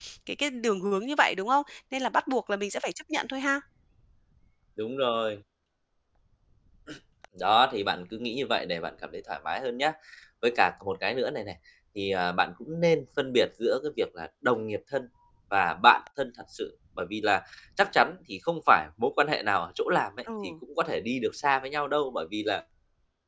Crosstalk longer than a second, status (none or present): none